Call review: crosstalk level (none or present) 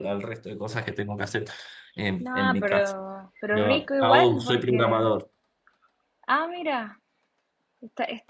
present